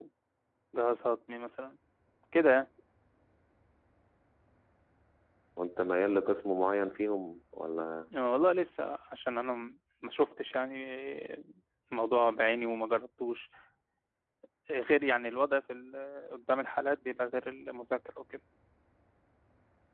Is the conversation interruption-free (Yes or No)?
Yes